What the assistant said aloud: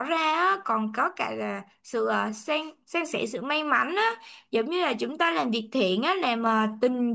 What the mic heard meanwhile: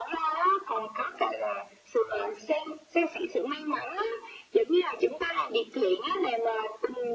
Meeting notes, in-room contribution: none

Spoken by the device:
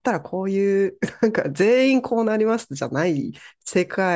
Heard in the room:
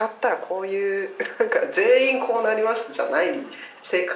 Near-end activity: none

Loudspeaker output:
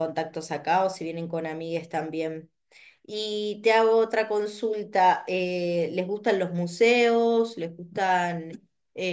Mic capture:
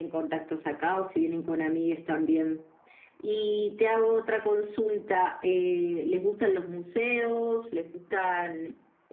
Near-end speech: none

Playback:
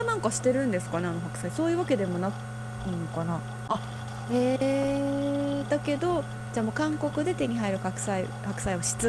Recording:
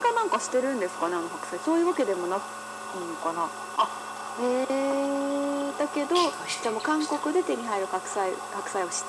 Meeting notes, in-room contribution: present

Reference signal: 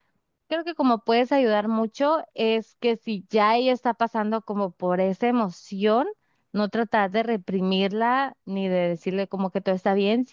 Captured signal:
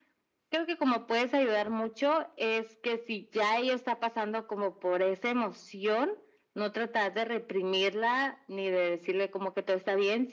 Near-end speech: none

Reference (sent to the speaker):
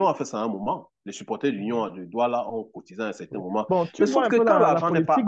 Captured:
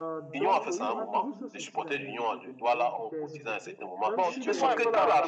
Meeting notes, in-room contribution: present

